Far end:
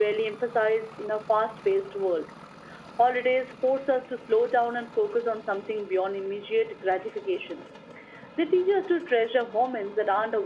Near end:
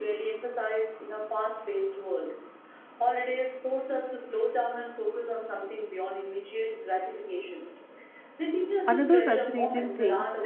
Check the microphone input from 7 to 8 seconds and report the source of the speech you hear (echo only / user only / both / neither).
echo only